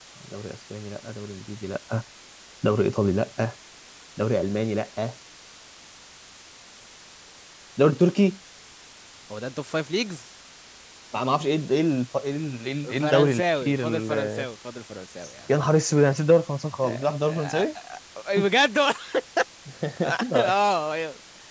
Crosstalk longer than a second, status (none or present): present